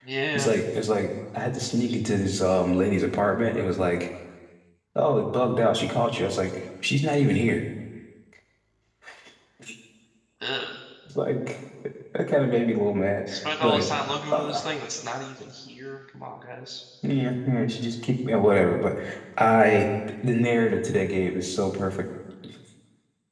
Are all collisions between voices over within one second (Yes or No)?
Yes